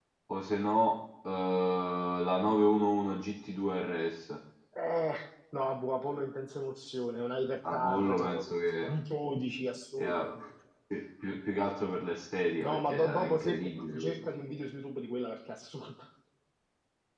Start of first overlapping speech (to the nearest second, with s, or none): 8 s